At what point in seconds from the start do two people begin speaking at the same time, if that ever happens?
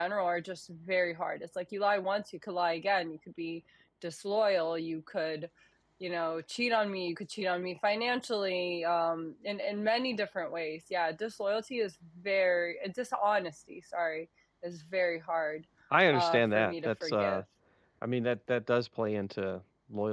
16 s

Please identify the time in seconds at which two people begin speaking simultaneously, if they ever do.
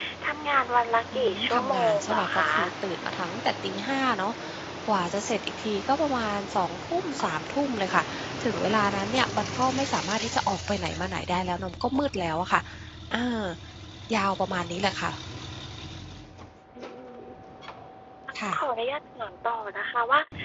1 s

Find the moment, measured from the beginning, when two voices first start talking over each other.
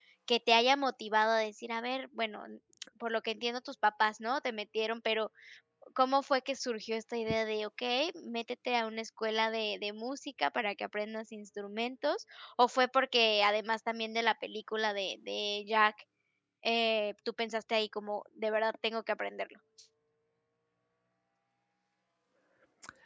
none

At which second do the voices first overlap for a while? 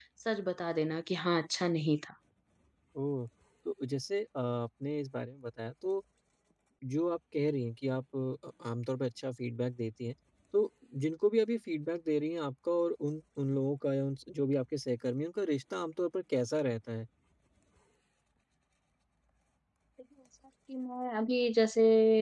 none

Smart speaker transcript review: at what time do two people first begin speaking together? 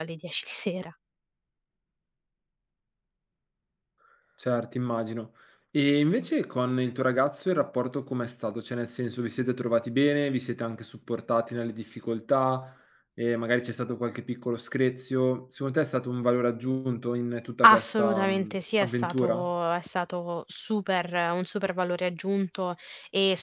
18 s

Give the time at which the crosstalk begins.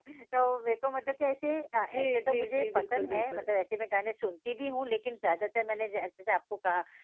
2 s

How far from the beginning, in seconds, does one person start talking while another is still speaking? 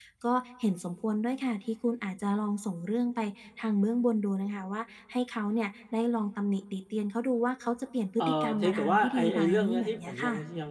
8 s

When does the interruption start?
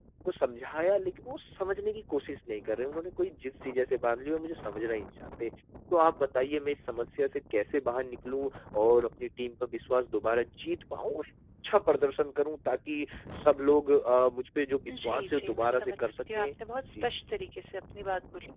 15 s

